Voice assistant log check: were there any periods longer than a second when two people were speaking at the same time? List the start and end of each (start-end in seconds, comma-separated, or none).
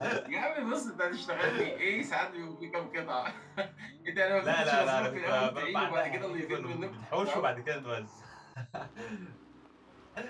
4.4-7.5